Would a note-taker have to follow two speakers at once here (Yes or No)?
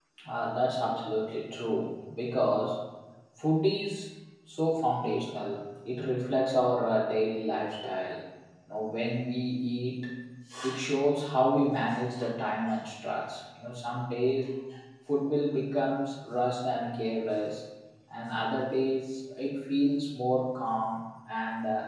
No